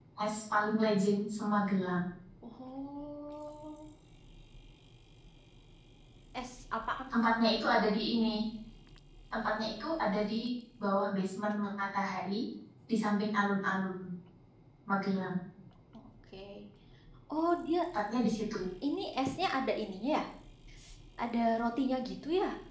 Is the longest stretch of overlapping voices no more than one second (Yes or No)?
Yes